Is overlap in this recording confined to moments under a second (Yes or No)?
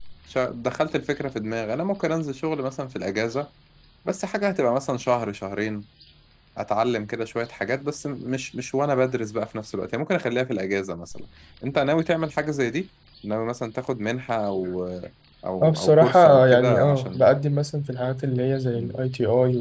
No